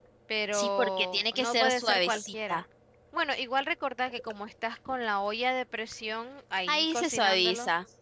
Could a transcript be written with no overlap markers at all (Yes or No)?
No